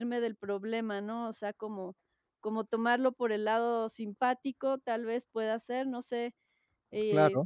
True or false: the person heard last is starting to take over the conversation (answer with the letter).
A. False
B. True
B